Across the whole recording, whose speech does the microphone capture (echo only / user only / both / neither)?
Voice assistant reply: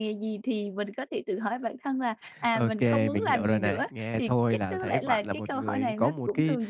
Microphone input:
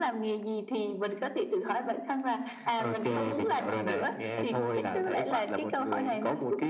echo only